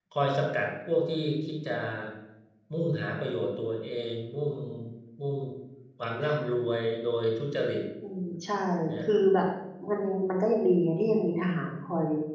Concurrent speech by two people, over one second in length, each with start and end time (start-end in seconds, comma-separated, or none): none